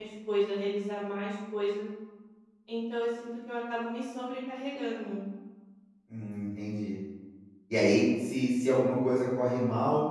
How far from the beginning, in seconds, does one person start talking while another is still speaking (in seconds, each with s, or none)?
none